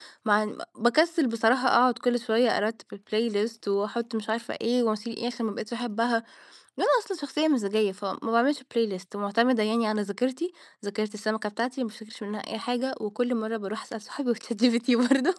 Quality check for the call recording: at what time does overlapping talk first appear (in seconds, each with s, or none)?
none